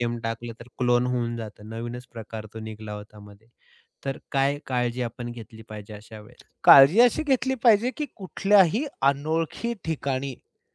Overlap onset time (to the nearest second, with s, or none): none